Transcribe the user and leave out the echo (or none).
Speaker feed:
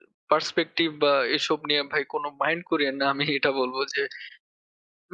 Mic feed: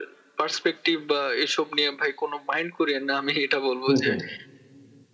হুম, হুম।